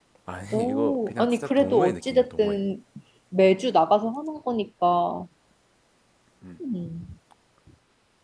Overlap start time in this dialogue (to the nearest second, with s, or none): 1 s